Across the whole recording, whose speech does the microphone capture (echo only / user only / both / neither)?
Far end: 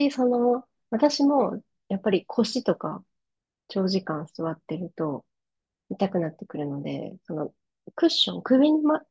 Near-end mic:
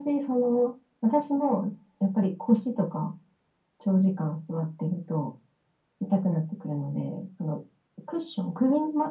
echo only